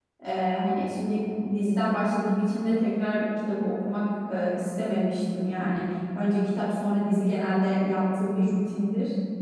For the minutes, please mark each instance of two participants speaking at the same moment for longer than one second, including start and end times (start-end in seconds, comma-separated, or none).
none